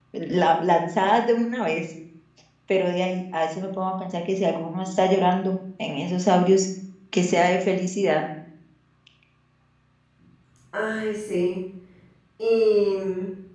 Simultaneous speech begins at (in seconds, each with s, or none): none